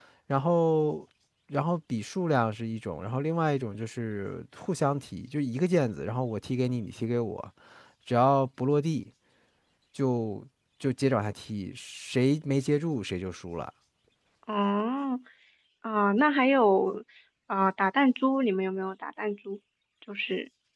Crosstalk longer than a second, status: none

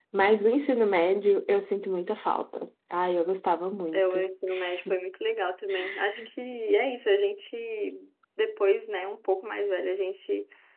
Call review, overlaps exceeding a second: none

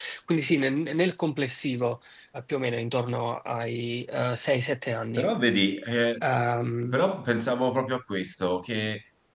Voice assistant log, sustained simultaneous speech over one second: none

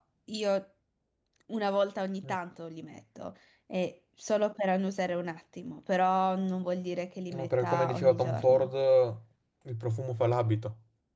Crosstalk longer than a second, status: present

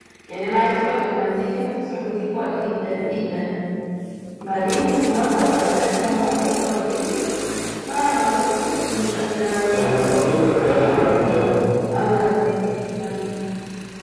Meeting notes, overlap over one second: present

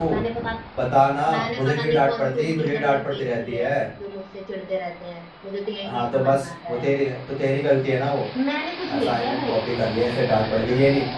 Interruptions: present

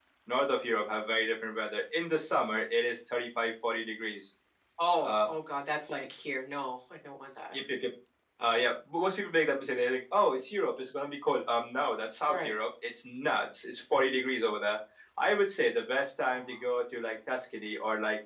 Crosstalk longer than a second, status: none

